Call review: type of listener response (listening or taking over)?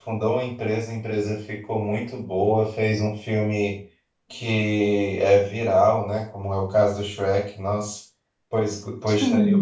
listening